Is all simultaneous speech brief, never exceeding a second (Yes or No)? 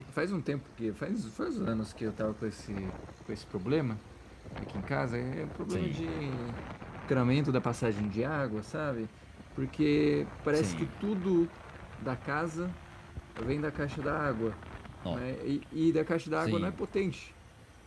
Yes